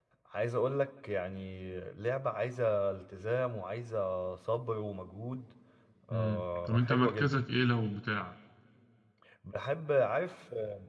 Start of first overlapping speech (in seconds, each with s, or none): 6.1 s